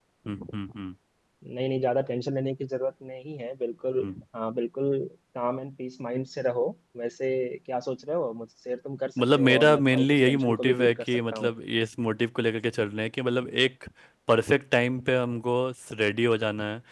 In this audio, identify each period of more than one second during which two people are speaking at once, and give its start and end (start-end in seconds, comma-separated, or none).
9.4-11.5